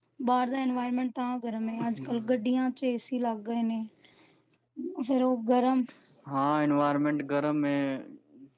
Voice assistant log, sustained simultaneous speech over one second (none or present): none